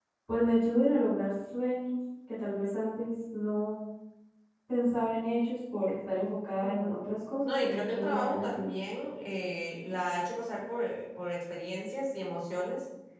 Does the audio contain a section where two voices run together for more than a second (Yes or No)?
Yes